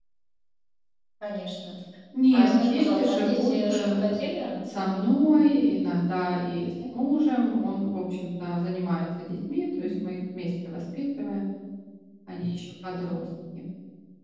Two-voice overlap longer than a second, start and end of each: 2.3-4.2

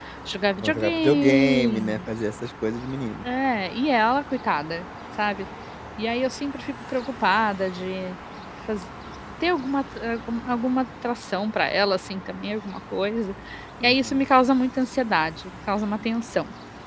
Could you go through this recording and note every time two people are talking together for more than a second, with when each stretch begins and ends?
0.6-2.1

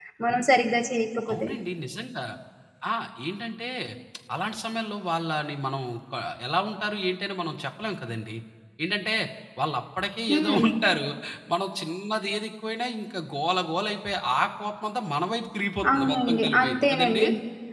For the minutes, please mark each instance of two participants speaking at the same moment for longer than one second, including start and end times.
15.9-17.2

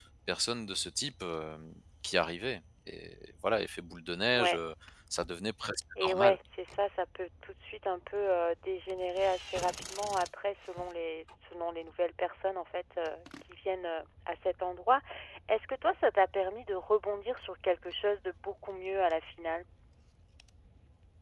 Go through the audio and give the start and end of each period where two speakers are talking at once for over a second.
none

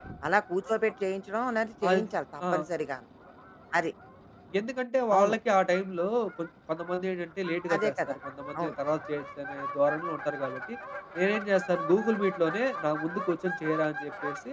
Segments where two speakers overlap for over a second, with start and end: none

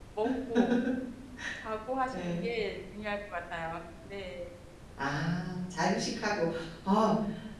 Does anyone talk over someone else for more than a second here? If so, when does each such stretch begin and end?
none

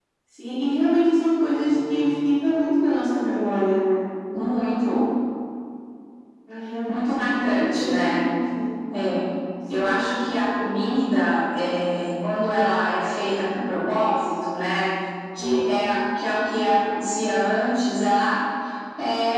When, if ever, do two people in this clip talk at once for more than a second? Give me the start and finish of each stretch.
6.9-8.3

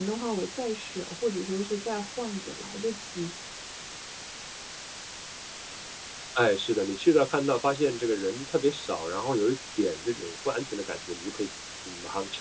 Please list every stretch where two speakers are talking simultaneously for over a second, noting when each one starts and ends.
none

